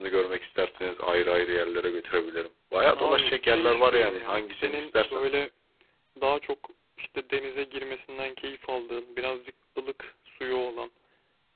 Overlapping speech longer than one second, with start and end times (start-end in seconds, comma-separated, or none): 3.0-5.2